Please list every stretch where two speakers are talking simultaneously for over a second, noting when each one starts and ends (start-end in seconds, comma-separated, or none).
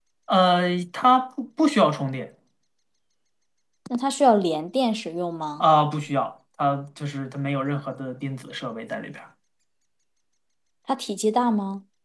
none